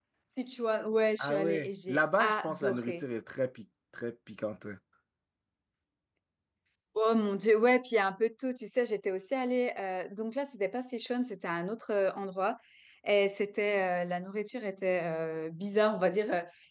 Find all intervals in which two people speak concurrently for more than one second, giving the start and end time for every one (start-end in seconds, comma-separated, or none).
1.2-3.0